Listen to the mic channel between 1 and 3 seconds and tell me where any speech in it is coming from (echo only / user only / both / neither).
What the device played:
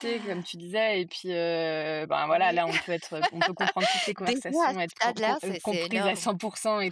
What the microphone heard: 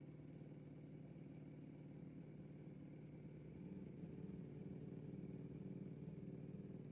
neither